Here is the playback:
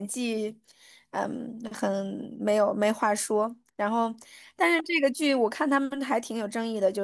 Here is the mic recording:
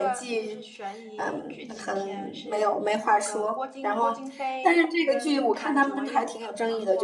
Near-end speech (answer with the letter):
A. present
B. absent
A